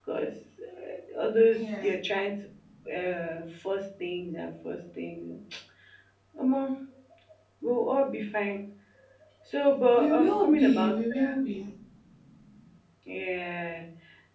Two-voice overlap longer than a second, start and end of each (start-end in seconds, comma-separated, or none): 9.9-11.4